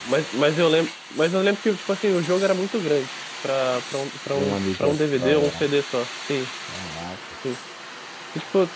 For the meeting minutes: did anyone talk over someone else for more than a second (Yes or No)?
Yes